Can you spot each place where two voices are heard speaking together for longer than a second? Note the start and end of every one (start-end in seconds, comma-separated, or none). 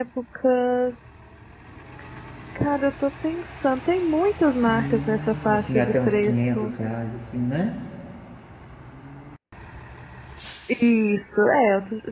4.7-6.7